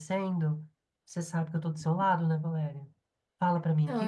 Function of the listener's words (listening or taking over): taking over